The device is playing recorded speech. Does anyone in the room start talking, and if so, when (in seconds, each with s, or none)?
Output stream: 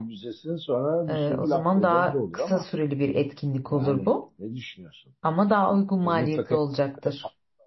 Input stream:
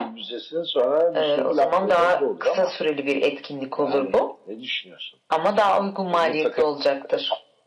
none